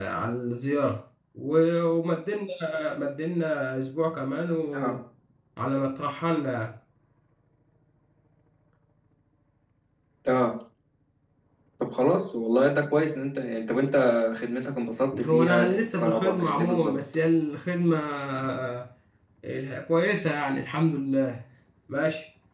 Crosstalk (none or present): present